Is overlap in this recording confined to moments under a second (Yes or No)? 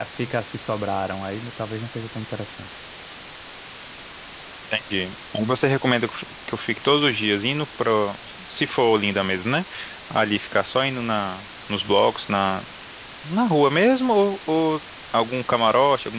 Yes